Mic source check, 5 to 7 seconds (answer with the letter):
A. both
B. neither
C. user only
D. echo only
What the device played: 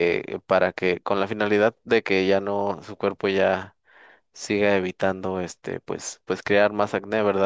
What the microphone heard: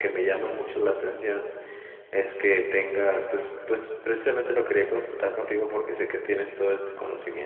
C